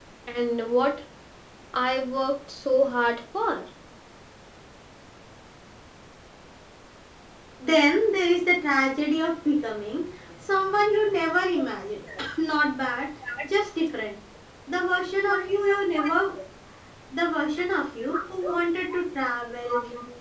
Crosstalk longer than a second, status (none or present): none